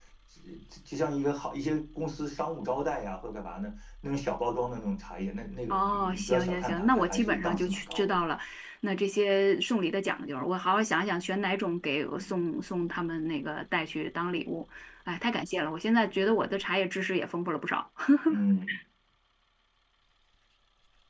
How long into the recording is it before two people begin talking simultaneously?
5.7 s

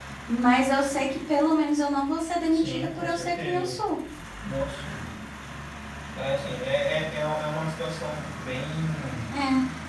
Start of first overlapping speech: 2.5 s

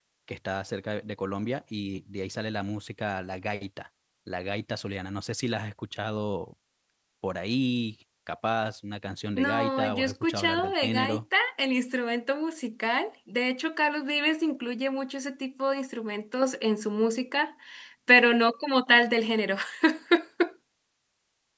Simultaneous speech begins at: 9.4 s

